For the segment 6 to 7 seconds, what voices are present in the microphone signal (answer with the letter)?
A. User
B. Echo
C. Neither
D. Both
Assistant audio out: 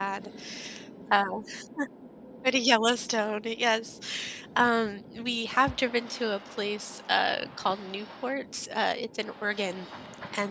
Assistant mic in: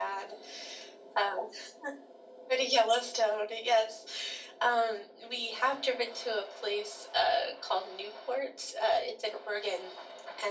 B